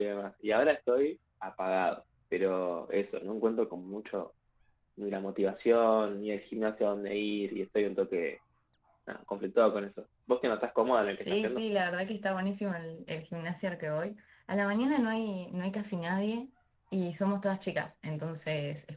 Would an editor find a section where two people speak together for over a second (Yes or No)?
No